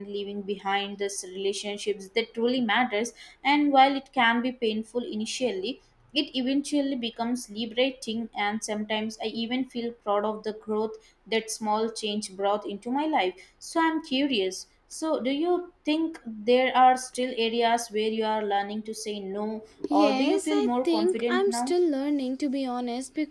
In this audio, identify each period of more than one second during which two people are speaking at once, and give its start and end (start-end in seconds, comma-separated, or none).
19.9-21.7